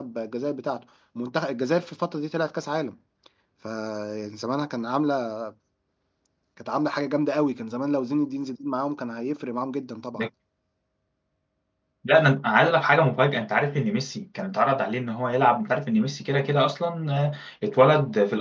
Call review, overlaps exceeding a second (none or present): none